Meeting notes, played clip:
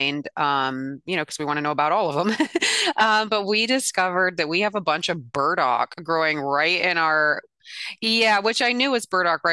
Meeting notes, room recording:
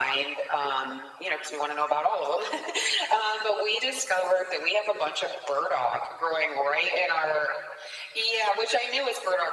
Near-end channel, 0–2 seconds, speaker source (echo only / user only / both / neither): echo only